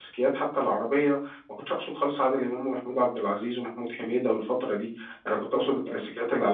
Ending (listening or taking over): listening